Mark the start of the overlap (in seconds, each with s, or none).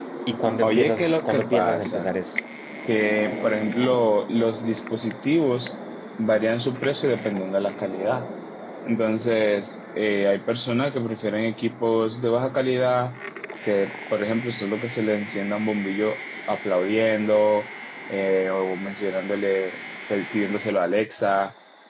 0.6 s